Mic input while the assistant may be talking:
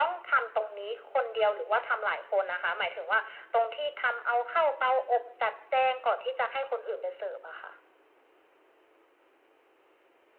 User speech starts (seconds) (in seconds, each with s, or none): none